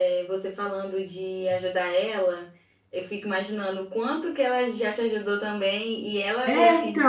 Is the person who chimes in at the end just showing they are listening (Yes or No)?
Yes